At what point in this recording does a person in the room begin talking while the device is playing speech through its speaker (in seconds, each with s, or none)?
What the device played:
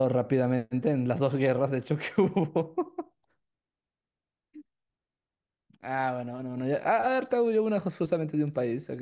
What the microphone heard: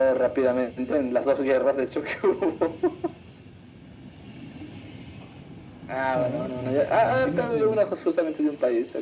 6.1 s